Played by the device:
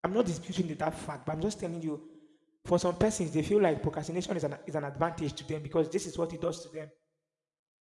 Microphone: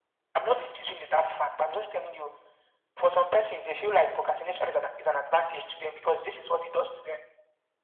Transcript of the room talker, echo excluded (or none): none